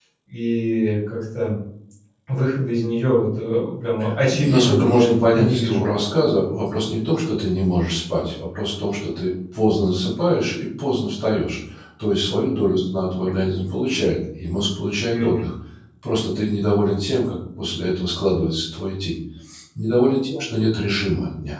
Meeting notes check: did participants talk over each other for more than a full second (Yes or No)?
Yes